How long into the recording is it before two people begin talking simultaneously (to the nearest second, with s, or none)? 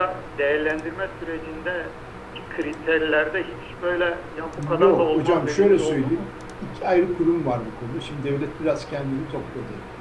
5 s